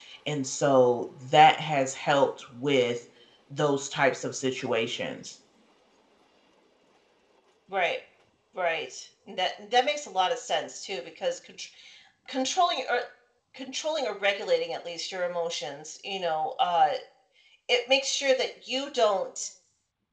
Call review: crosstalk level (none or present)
none